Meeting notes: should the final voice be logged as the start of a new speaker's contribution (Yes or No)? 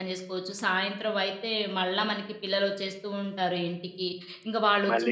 No